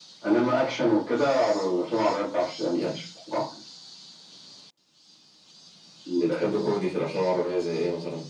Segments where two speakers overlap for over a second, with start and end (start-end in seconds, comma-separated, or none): none